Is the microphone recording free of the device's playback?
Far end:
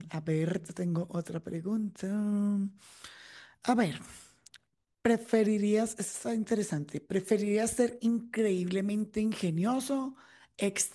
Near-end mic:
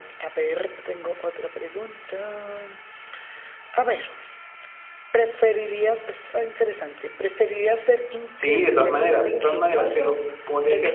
No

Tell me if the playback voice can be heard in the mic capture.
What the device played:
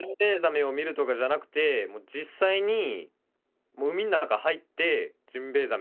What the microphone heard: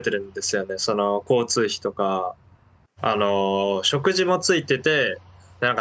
No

